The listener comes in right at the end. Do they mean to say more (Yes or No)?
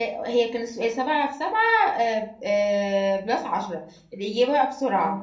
No